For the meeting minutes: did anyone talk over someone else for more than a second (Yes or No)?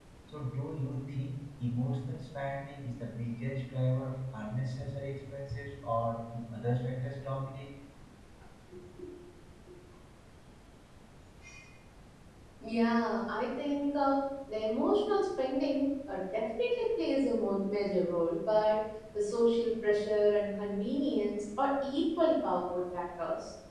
No